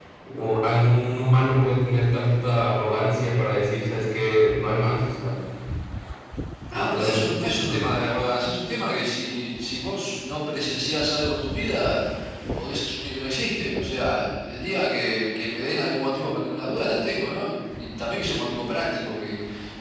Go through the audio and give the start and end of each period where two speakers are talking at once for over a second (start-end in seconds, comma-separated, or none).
6.7-7.9